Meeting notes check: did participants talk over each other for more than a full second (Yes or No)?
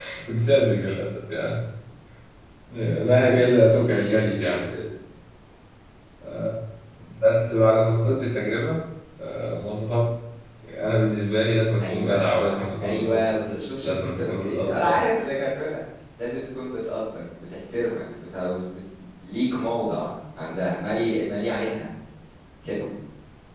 Yes